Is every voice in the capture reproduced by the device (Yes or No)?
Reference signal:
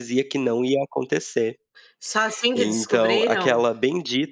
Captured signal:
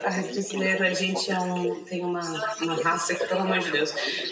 No